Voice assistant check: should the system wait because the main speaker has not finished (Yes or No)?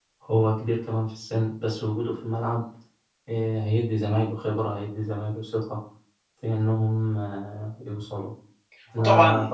Yes